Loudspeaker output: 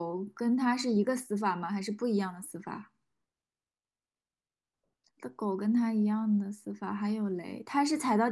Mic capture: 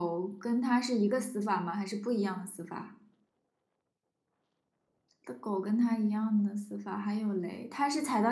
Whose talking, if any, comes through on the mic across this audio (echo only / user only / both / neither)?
echo only